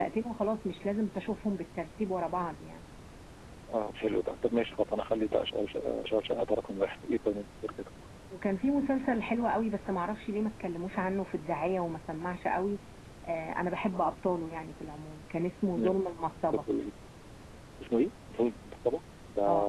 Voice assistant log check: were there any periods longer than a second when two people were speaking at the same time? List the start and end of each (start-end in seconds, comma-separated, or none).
none